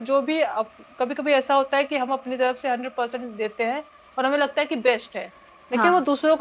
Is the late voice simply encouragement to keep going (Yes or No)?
Yes